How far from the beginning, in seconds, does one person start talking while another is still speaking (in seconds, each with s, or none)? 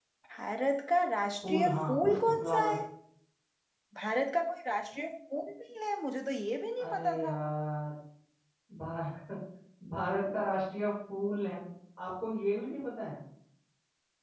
1.4 s